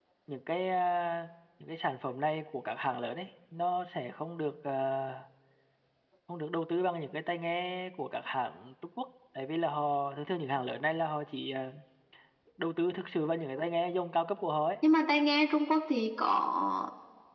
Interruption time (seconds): none

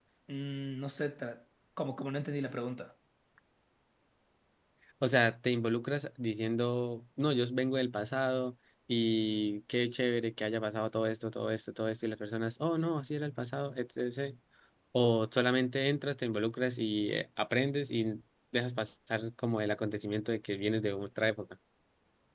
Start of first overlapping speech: none

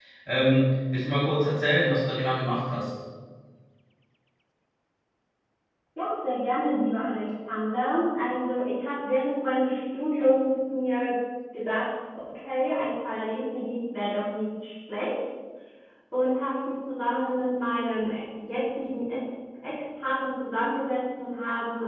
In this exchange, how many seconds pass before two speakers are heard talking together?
none

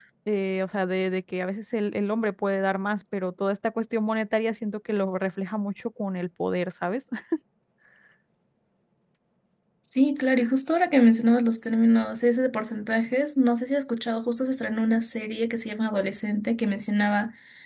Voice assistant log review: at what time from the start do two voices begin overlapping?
none

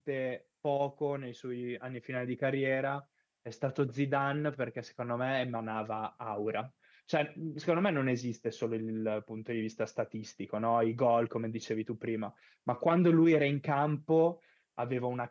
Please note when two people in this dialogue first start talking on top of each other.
none

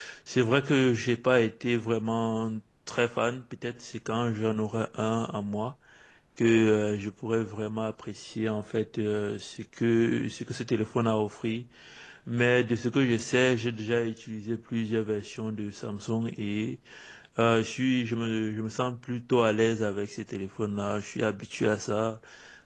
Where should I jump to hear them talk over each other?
none

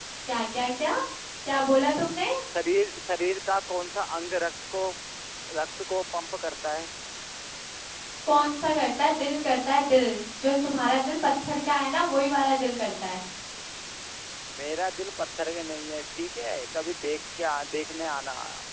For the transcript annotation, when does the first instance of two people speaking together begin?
none

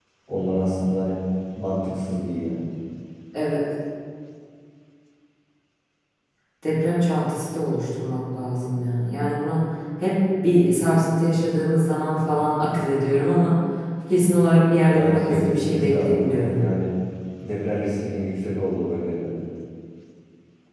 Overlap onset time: 14.9 s

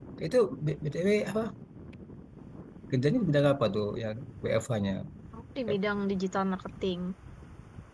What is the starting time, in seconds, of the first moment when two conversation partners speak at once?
none

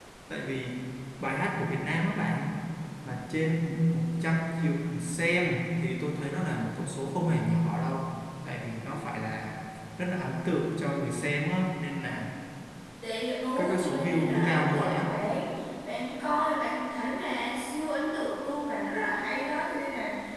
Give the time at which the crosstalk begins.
13.6 s

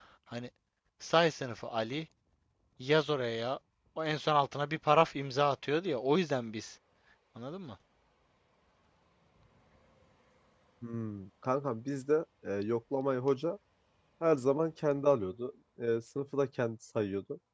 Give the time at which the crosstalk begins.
none

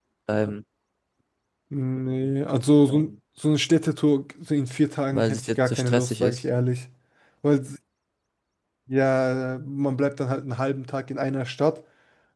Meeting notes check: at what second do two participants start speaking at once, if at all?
5.1 s

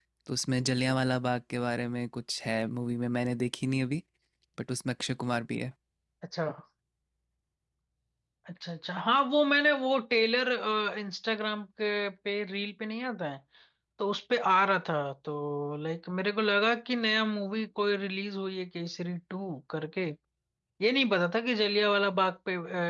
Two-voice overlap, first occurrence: none

